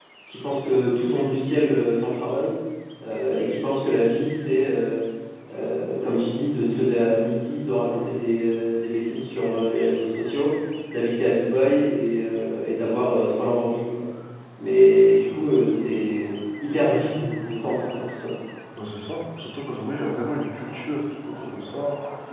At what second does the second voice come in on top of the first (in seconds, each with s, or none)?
none